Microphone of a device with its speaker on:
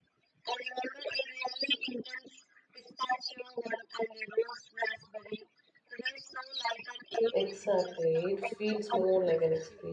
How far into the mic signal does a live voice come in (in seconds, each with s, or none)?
7.3 s